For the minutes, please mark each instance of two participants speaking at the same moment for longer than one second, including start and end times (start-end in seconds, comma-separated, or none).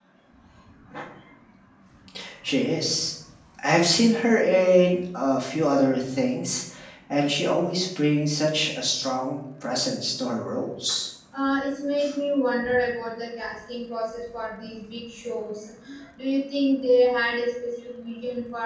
none